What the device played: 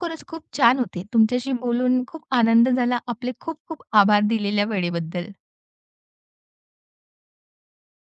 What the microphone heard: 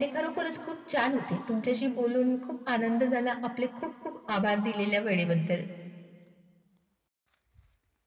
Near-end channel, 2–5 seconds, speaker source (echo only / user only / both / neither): echo only